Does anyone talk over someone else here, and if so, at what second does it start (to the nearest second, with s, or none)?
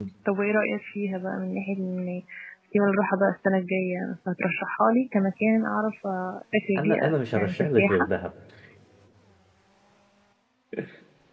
7 s